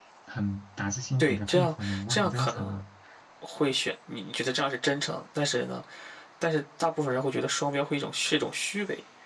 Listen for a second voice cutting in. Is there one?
Yes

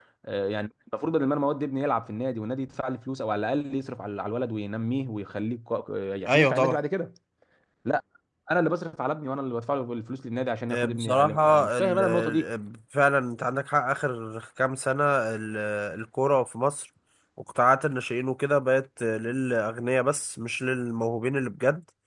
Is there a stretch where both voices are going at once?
Yes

